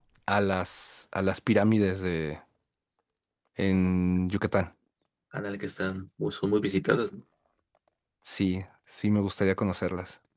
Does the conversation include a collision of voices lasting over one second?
No

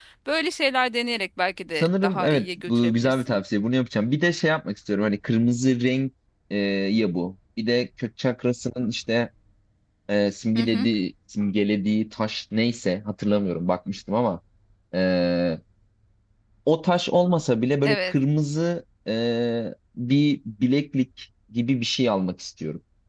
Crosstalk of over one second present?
Yes, from 1.8 s

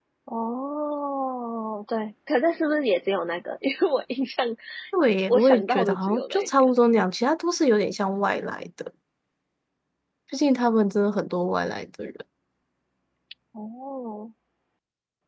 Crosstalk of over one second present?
Yes, from 5.3 s

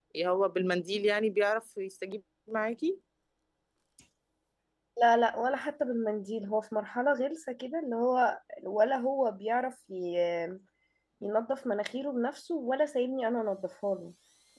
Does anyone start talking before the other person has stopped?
No

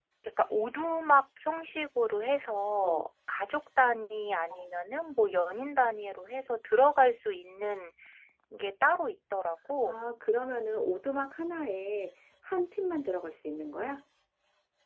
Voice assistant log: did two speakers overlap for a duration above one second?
No

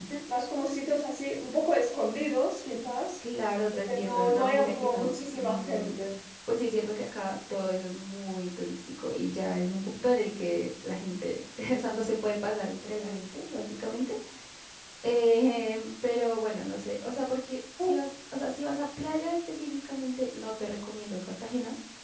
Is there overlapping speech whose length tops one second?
Yes, from 3.9 s

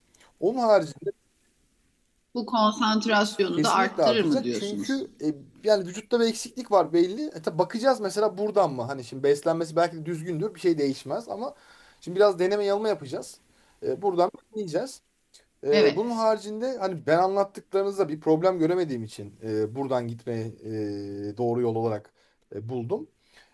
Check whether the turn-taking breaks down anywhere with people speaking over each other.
Yes, from 3.6 s

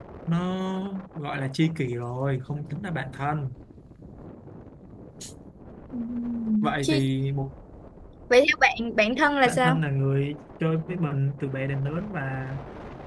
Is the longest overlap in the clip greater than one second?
No

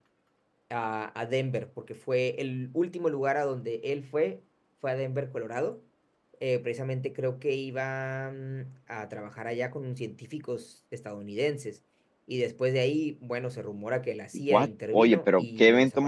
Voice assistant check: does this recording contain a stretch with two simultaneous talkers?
Yes, from 14.5 s

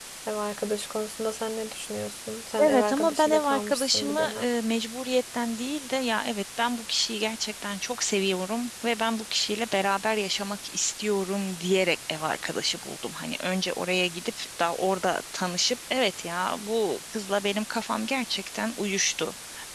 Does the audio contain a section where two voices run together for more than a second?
Yes, from 2.6 s

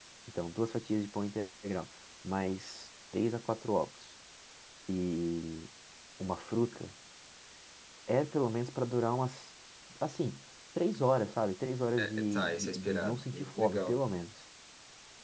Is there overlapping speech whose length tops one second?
Yes, from 12.0 s

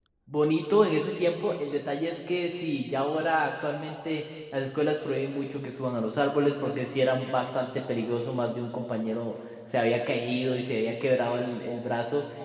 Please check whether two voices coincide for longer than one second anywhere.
No

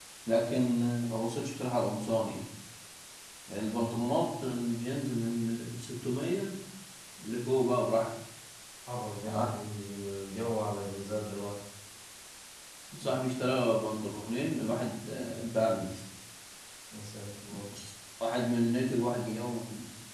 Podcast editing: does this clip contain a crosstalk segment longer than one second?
No

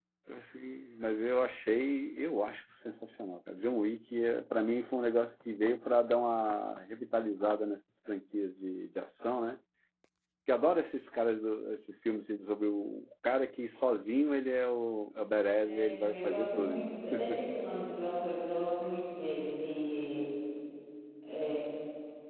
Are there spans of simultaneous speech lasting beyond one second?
Yes, from 15.6 s

